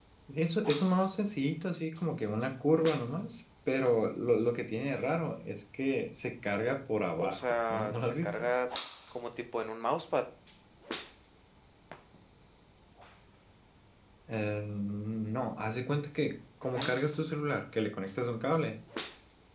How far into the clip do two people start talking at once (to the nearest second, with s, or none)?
7 s